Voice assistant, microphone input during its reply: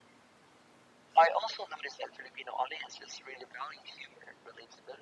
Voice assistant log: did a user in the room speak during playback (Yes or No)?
No